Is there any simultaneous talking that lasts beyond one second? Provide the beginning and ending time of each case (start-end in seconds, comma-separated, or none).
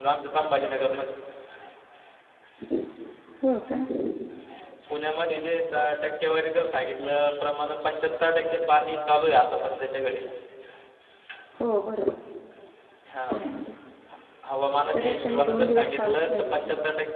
14.9-16.6